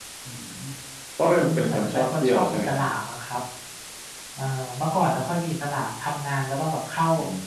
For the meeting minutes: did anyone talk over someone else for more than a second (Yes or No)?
Yes